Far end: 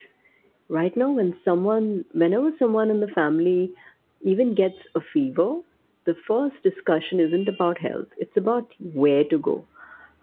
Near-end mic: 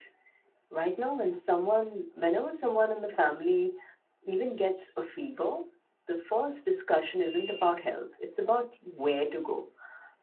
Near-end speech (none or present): none